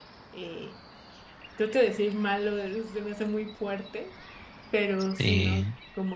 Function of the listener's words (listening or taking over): listening